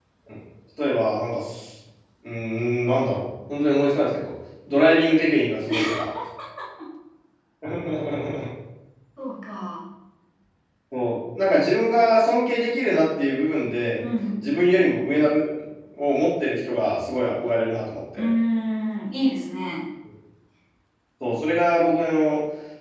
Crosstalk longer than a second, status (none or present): none